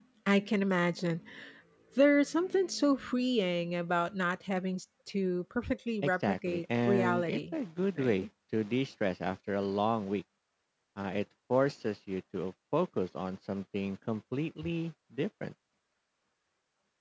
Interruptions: present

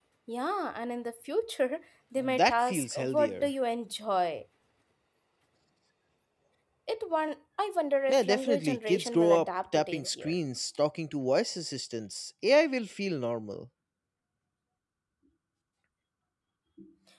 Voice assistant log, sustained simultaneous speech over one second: present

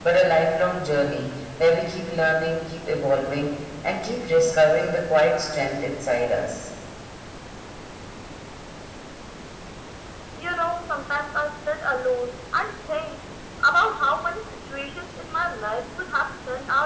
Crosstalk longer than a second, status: none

